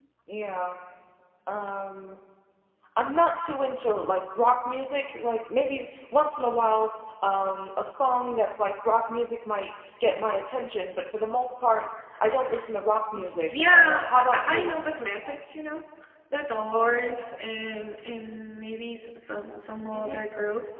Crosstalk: present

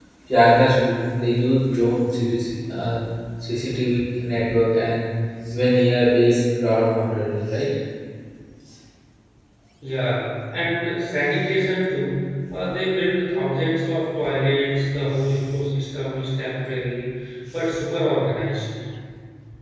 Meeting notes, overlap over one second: none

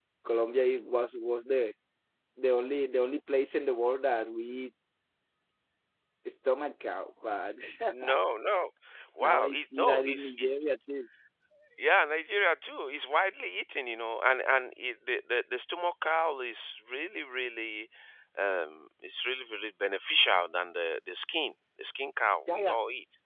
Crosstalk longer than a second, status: present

